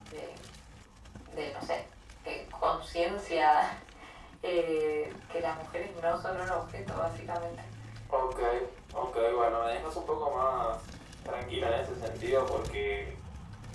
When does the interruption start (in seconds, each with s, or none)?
none